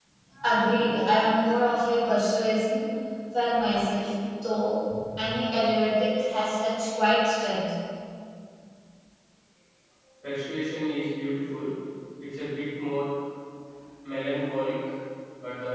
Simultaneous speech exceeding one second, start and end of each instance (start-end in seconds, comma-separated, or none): none